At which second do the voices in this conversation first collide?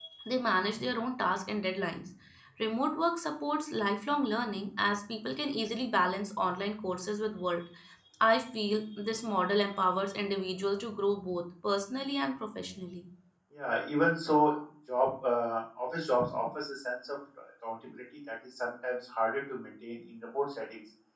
none

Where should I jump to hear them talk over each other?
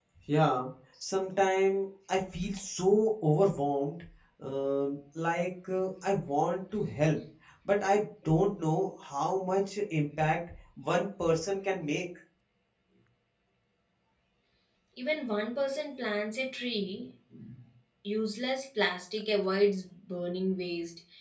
none

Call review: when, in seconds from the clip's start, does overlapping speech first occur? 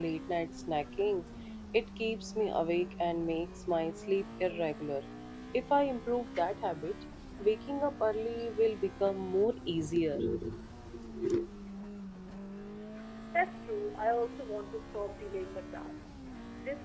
none

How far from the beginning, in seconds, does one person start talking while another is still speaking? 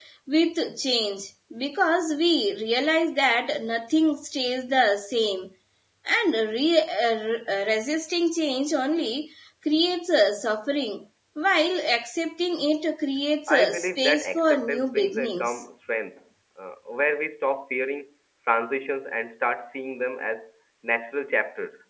13 s

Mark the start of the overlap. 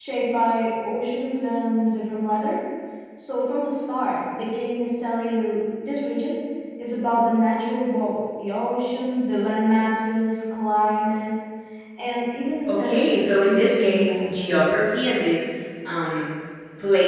13 s

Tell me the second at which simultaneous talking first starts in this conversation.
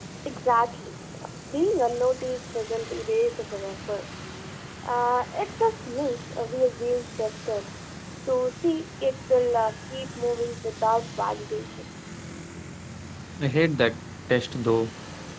none

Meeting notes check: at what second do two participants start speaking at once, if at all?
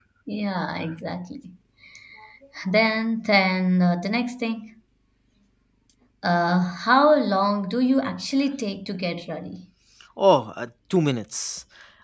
none

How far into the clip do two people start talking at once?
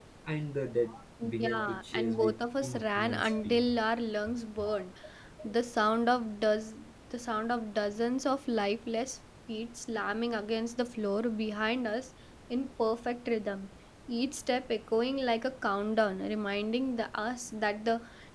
1 s

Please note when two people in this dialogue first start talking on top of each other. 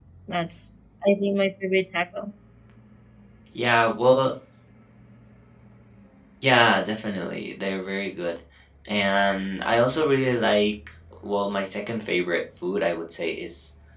none

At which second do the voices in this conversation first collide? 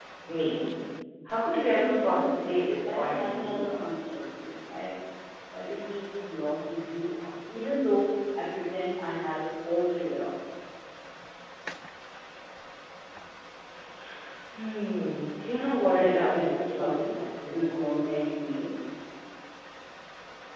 1 s

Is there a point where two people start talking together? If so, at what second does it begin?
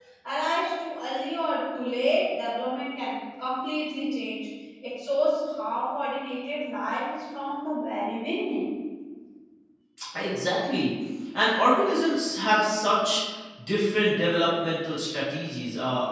none

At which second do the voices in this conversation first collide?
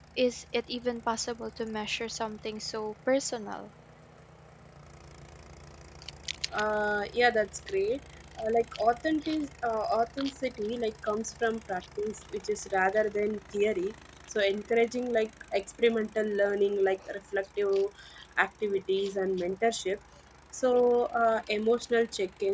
none

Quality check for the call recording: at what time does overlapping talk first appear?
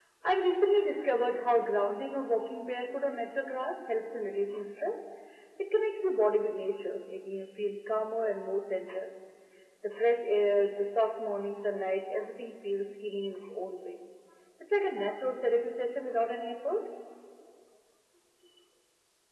none

